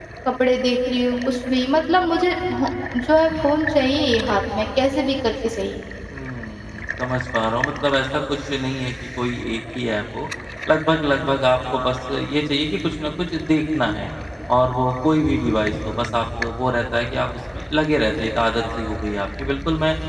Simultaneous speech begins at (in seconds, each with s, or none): none